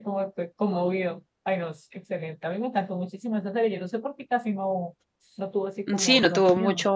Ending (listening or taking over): taking over